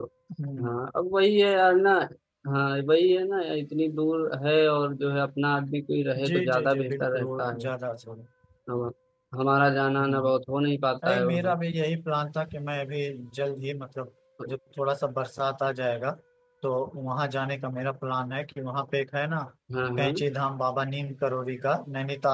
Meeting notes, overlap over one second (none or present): present